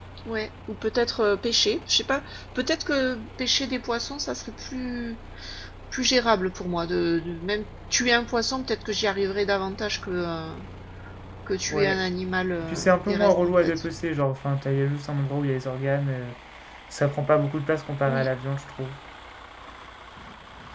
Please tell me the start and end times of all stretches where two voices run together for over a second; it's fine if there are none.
12.6-13.8

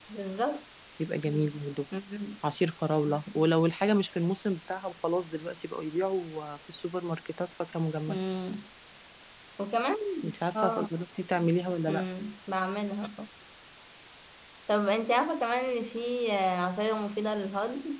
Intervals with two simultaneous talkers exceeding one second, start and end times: none

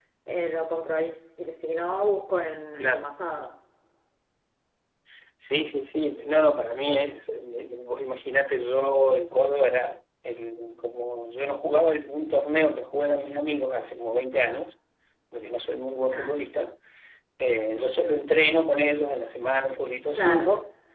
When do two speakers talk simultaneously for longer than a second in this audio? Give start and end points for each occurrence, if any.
none

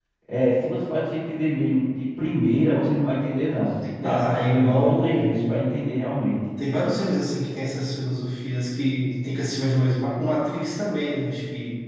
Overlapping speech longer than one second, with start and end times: 4.0-5.5

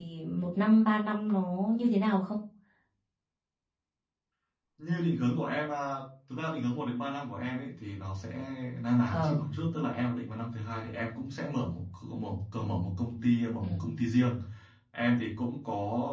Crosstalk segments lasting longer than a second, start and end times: none

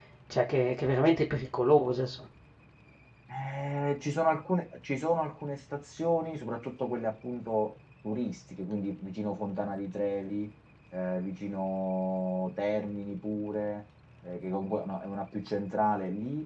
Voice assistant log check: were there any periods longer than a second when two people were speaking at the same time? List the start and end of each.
none

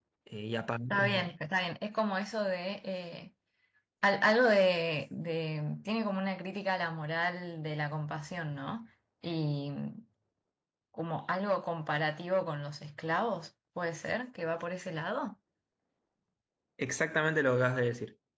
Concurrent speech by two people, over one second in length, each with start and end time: none

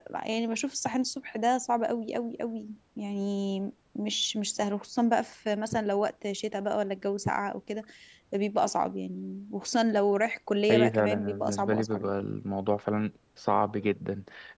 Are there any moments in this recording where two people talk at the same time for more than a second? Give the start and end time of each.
10.7-12.1

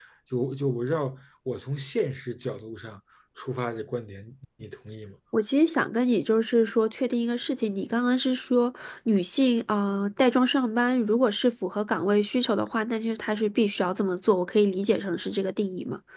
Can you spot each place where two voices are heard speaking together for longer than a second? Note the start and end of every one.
none

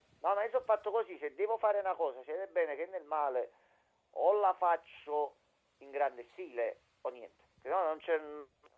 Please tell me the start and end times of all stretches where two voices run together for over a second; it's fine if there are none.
none

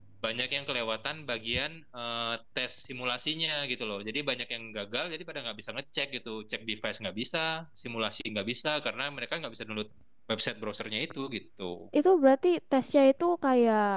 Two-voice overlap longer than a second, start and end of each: none

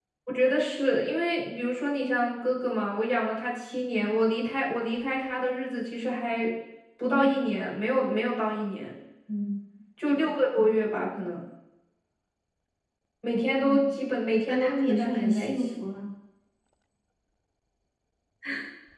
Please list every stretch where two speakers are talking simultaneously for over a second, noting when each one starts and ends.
14.5-15.8

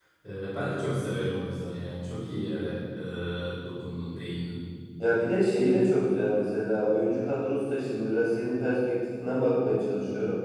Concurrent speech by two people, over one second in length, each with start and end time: none

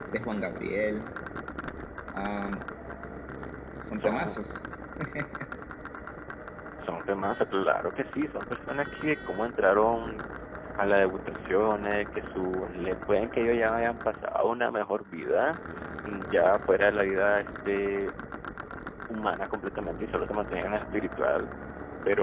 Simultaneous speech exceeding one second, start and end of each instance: none

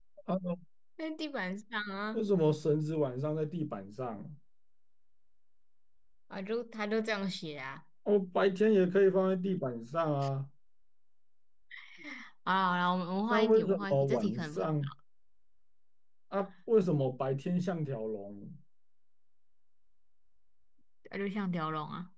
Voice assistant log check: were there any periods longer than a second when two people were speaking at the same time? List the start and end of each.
13.3-14.6

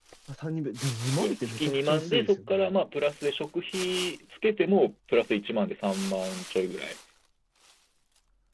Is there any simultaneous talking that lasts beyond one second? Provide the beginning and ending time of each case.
1.2-2.7

